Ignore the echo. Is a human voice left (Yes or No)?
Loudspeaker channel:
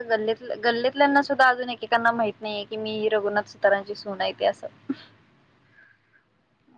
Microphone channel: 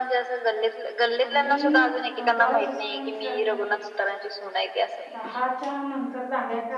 Yes